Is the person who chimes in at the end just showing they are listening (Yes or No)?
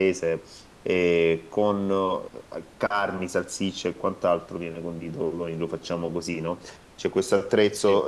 Yes